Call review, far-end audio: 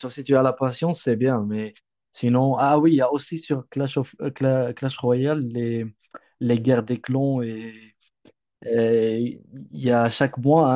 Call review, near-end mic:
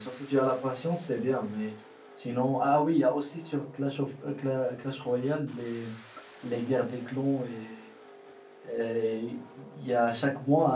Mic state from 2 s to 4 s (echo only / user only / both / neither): echo only